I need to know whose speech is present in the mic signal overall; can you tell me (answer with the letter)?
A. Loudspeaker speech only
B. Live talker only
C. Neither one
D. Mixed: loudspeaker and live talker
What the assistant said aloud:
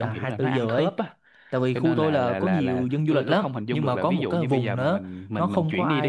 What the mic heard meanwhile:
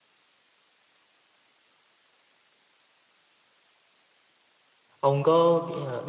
B